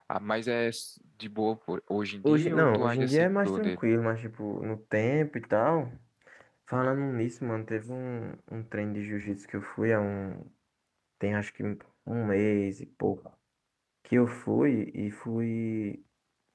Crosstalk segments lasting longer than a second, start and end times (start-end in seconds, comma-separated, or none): 2.2-3.8